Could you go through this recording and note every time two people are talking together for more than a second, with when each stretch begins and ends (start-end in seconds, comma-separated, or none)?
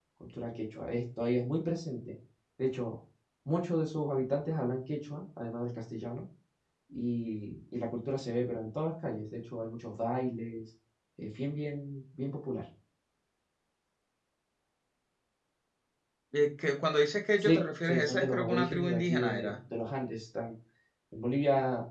17.4-19.5